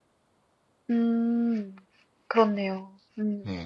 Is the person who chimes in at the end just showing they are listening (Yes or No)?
No